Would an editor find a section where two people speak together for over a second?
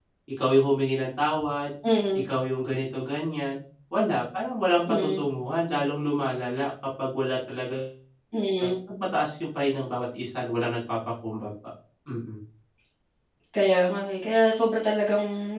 No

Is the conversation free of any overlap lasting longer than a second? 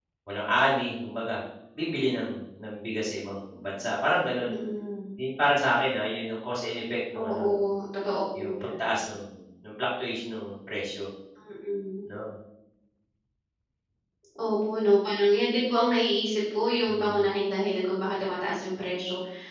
Yes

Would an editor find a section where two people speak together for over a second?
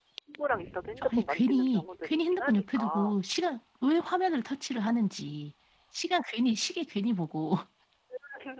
Yes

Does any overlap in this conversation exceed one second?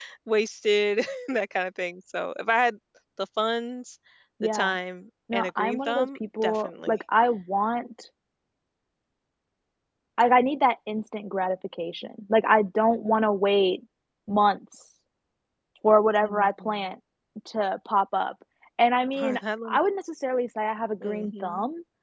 Yes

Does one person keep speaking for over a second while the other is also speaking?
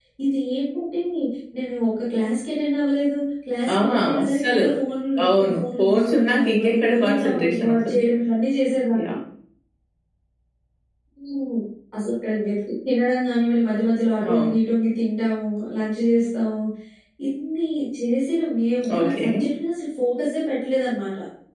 Yes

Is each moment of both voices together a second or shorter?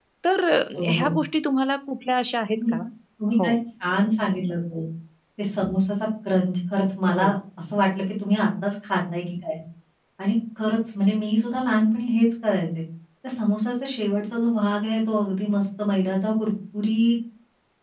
Yes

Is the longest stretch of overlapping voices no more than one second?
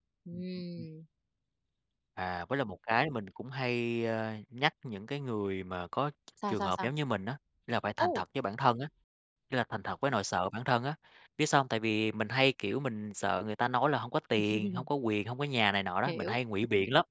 Yes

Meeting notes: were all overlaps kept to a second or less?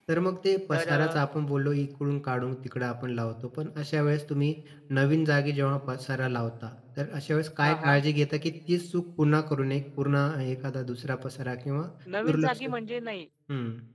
Yes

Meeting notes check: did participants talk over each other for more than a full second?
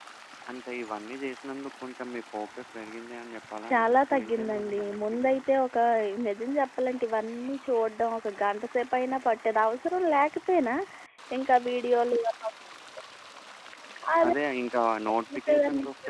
Yes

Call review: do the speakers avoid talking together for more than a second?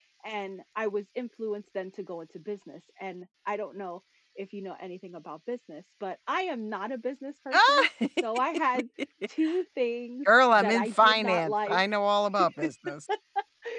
No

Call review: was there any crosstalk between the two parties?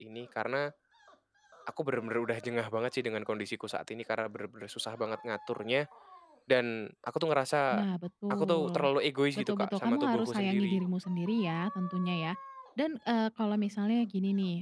Yes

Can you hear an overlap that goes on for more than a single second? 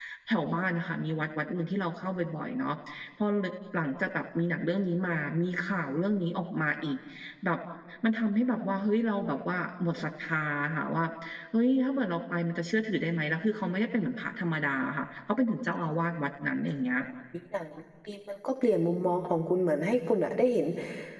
No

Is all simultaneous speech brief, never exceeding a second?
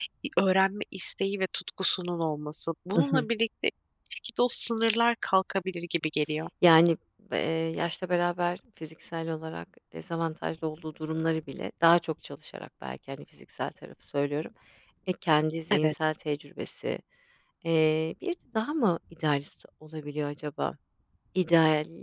Yes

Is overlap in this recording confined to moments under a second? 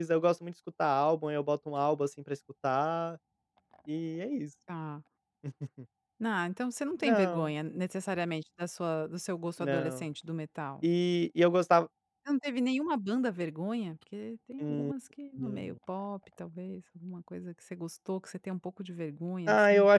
Yes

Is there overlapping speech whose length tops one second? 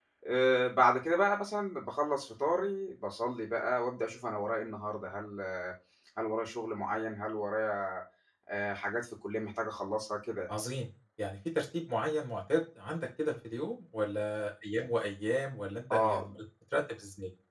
No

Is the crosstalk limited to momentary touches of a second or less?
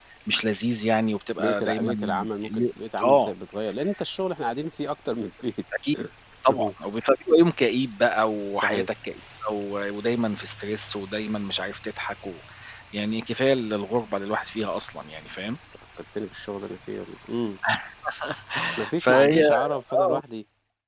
No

